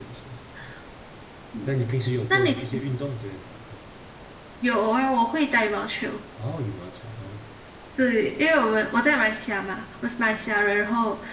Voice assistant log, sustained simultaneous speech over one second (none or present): none